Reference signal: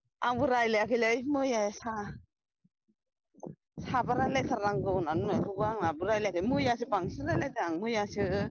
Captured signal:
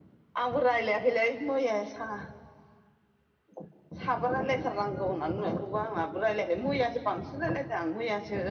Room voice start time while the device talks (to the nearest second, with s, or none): none